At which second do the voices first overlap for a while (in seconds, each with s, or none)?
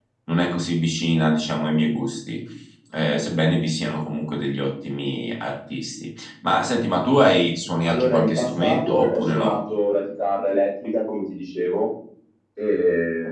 7.8 s